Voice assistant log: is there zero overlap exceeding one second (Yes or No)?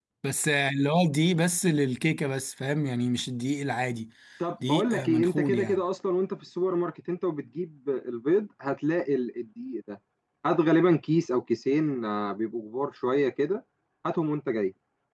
No